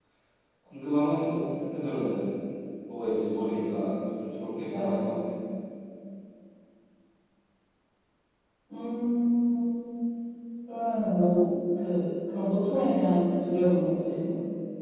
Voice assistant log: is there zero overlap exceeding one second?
Yes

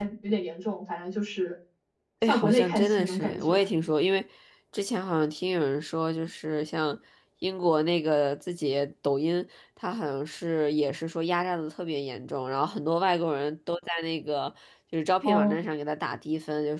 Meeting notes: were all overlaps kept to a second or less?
No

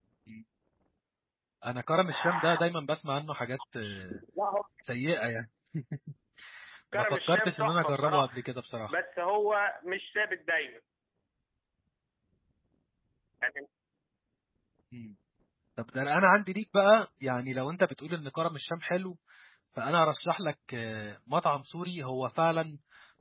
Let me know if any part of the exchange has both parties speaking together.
Yes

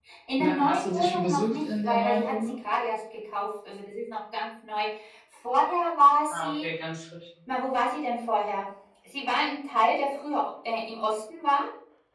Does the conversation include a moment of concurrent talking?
Yes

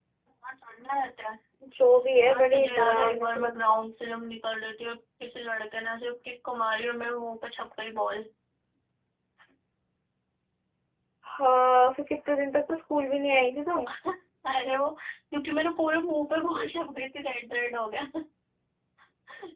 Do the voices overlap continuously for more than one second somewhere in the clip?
Yes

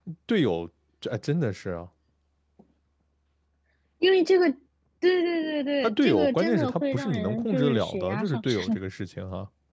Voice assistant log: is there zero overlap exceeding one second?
No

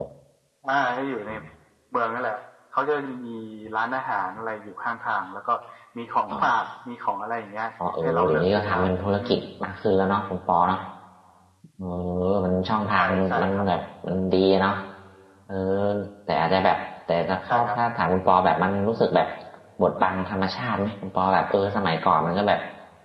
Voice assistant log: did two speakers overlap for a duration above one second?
Yes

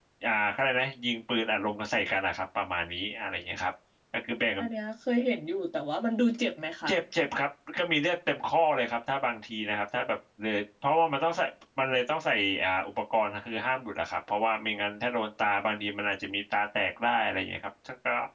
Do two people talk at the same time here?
No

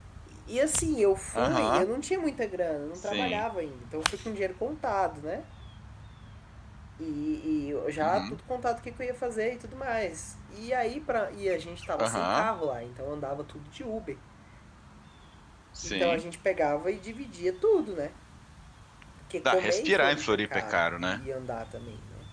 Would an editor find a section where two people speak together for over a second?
Yes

